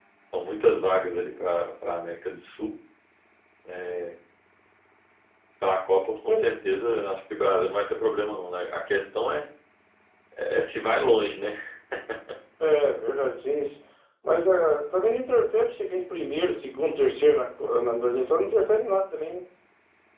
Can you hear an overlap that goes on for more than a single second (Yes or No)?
No